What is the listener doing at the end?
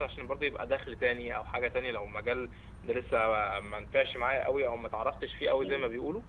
listening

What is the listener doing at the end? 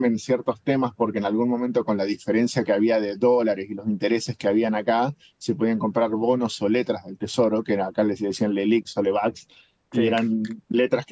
listening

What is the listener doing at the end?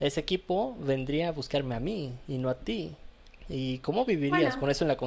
listening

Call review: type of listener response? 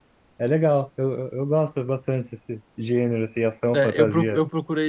taking over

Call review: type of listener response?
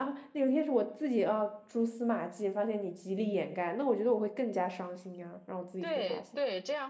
taking over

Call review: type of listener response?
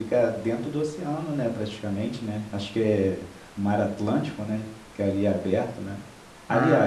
listening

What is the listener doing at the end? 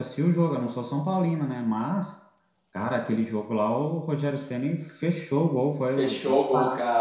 taking over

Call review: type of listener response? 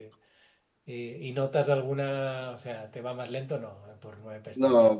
taking over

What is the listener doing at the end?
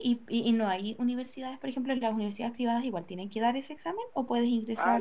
taking over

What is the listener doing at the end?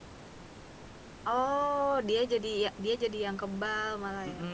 taking over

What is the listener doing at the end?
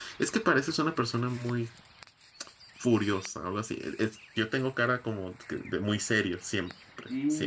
taking over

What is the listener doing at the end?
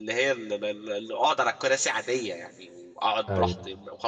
listening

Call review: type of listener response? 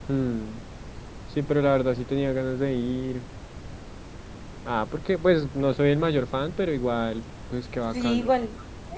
taking over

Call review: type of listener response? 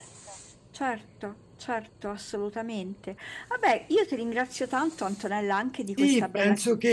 taking over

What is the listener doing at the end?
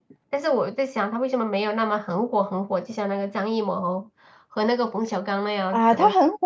taking over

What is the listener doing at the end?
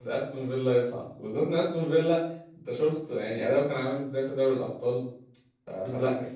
listening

